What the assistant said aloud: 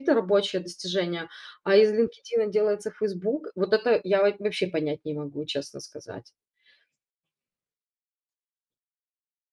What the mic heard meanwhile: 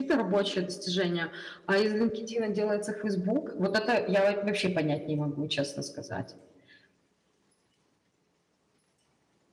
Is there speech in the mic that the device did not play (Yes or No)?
No